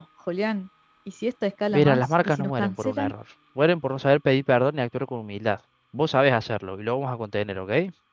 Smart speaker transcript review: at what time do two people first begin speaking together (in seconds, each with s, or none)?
1.7 s